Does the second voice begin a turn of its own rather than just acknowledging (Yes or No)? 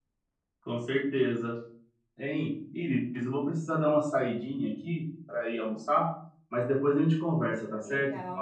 Yes